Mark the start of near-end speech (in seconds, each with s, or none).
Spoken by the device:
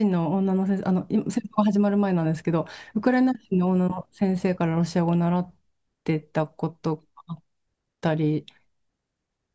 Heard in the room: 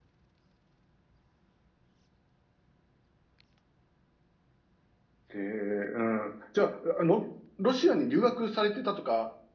5.3 s